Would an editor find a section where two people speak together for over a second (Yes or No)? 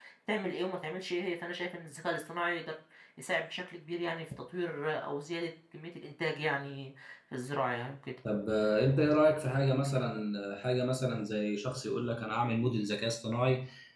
No